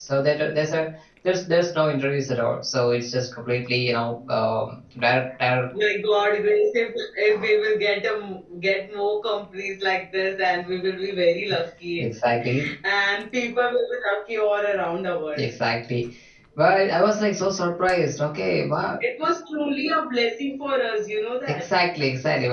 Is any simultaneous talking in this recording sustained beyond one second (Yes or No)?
No